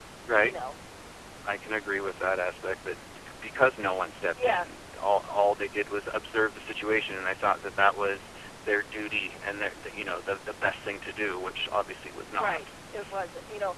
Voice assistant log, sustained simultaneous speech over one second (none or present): none